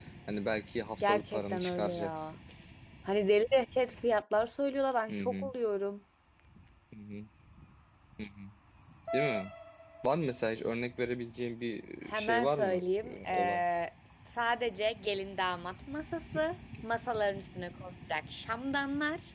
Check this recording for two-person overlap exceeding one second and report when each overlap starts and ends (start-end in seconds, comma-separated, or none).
1.0-2.4, 12.1-13.6